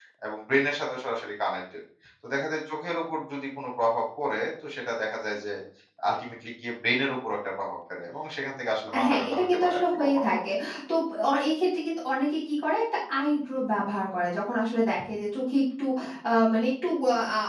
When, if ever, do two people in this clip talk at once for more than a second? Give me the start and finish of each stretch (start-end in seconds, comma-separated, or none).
9.1-10.4